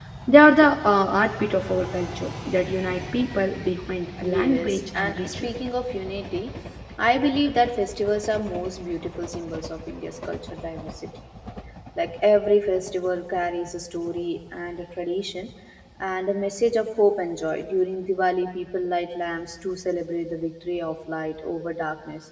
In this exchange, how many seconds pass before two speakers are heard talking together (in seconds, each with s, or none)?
4.2 s